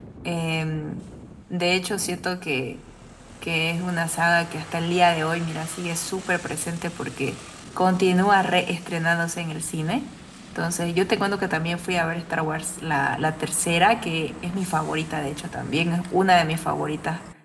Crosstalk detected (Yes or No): No